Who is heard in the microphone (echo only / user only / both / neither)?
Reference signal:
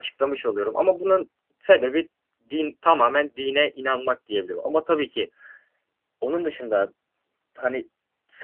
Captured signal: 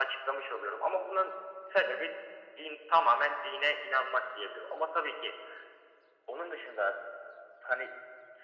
echo only